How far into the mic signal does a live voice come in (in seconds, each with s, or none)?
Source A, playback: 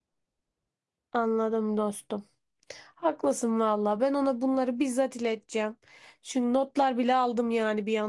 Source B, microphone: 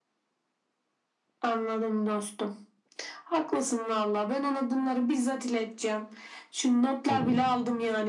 7.1 s